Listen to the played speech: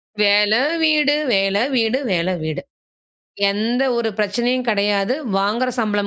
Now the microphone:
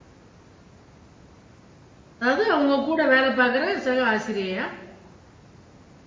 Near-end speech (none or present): present